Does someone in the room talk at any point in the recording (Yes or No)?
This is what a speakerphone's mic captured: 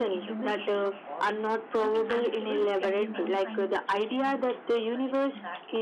Yes